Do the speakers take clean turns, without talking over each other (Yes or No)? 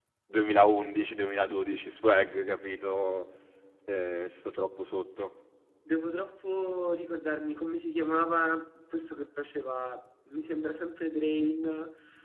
Yes